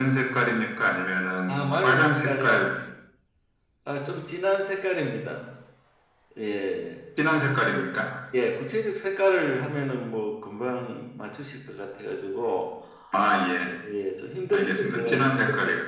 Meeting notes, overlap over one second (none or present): present